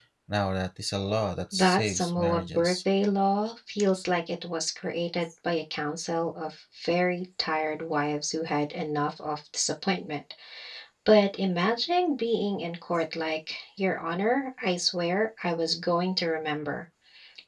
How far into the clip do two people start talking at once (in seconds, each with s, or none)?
1.5 s